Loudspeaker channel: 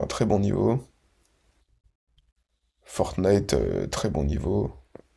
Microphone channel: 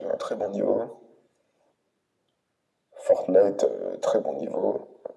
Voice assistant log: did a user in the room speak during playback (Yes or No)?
No